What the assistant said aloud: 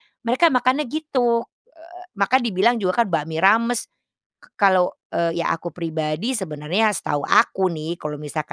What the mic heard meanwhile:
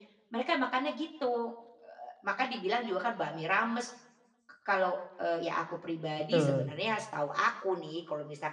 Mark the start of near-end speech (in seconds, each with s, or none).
6.2 s